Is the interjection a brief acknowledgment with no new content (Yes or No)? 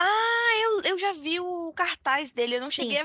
No